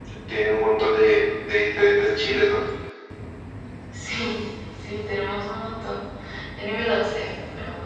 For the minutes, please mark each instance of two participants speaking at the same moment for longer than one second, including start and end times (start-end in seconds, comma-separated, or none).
none